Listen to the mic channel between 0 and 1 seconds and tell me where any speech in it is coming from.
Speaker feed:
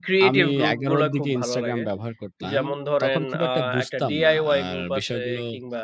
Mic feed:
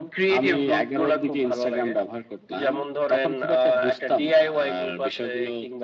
echo only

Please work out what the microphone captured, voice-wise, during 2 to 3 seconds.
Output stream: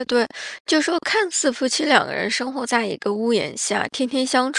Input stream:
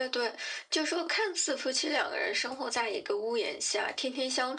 echo only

